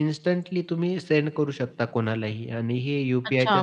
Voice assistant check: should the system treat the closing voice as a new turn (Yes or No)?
Yes